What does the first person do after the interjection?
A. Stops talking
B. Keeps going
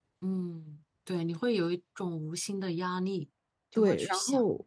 A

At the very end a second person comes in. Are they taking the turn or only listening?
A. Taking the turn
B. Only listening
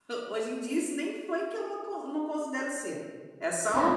A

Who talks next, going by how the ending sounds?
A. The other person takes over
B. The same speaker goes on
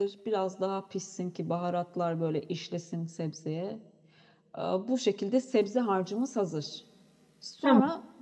B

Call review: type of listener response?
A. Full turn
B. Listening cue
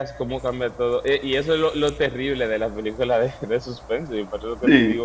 B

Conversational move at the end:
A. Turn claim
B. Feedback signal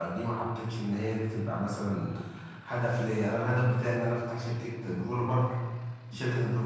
B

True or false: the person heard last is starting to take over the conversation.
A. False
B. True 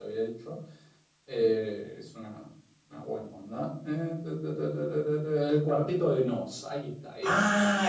B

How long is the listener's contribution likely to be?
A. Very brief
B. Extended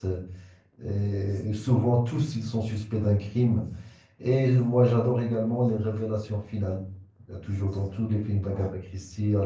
A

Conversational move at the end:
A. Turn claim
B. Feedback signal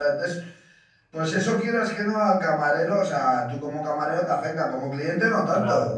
A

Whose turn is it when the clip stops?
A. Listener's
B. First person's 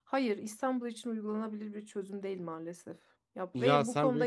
A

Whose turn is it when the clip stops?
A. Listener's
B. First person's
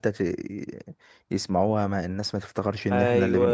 A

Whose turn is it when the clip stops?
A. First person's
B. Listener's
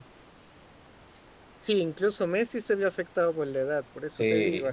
B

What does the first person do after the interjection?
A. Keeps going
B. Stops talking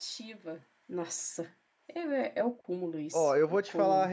B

